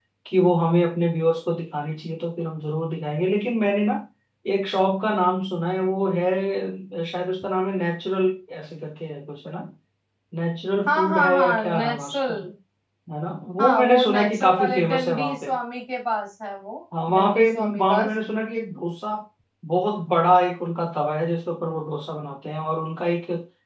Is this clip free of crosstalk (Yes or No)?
No